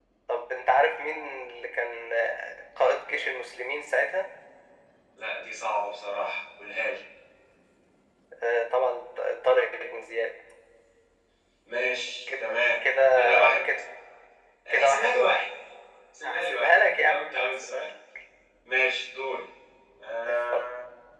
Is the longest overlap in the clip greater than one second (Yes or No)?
Yes